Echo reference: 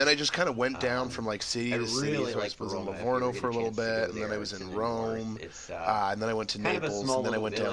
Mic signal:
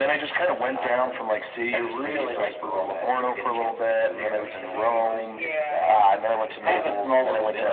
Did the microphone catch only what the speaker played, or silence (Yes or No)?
No